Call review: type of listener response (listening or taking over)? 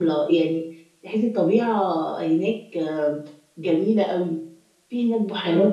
listening